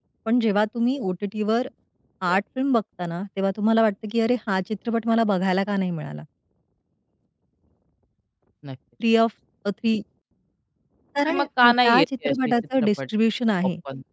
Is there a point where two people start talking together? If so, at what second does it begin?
11.3 s

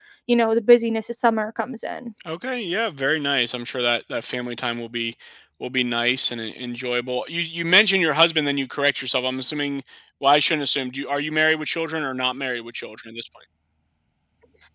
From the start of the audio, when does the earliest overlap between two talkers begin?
none

